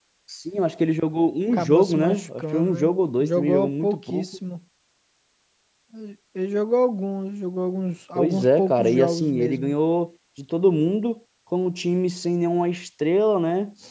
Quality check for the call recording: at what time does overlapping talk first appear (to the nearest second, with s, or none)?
2 s